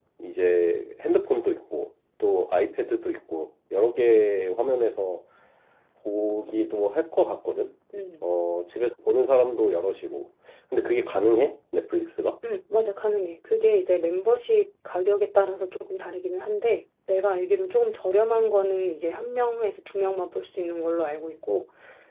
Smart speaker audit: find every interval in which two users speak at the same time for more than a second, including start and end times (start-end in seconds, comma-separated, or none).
none